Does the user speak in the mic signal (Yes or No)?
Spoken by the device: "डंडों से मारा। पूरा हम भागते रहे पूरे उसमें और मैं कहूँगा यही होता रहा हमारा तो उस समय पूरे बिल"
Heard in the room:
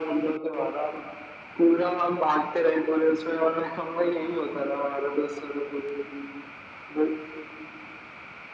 No